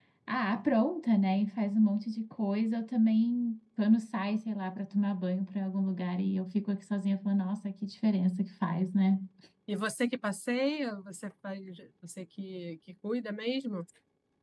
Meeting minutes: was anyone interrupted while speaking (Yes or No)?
No